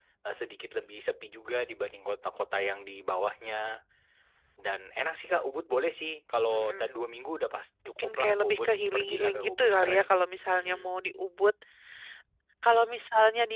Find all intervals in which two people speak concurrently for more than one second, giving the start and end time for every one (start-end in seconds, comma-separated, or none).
7.8-10.0